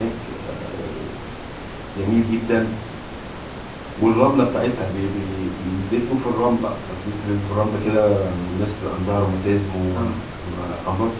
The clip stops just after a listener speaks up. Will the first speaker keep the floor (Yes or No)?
Yes